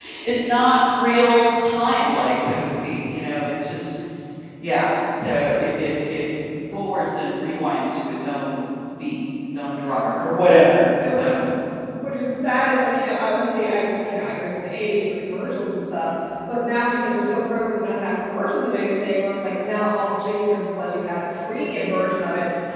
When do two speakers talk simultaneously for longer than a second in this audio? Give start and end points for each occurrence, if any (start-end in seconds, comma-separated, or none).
none